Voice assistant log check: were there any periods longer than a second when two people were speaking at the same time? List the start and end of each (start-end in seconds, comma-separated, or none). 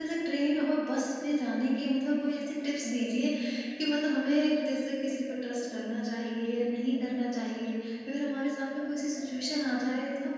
none